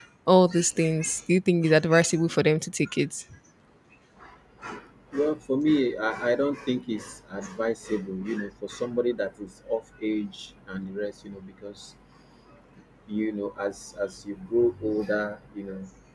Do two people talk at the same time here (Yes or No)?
No